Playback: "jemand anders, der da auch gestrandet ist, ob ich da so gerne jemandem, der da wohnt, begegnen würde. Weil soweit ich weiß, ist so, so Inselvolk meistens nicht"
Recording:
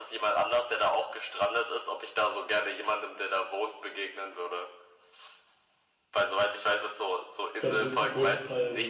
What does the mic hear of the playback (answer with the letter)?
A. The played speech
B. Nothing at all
A